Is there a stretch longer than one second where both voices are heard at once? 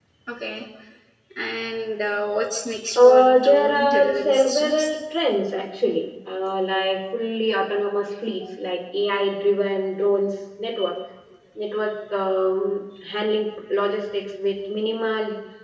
Yes, from 3.0 s

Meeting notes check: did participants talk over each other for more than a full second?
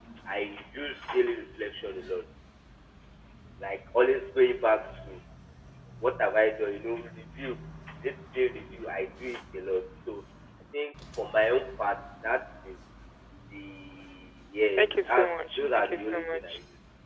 Yes, from 14.8 s

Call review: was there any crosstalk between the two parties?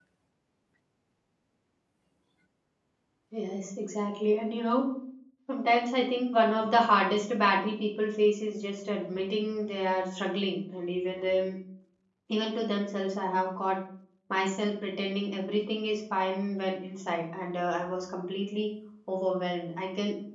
No

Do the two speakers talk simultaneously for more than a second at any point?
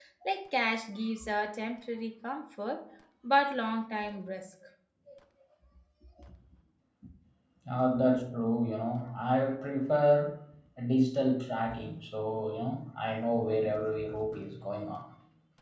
No

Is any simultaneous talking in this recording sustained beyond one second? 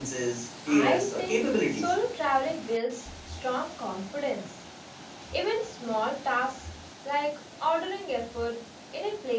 Yes, from 0.7 s

